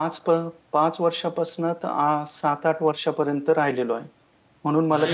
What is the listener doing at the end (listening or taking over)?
taking over